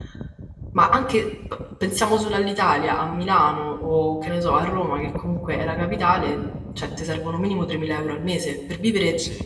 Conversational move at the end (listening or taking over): listening